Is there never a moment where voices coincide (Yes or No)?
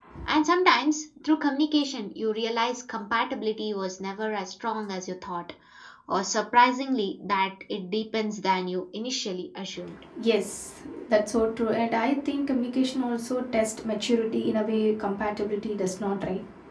Yes